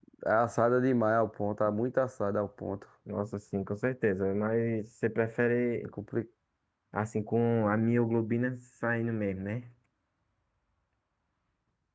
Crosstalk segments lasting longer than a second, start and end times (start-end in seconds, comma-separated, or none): none